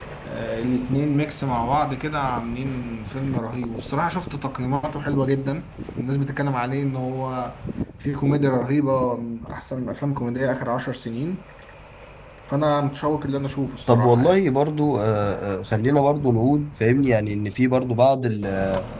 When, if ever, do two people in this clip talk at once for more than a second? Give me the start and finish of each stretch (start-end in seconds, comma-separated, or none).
none